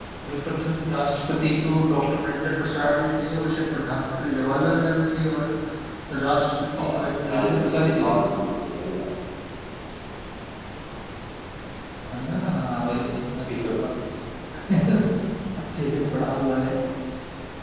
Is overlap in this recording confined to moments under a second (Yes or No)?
No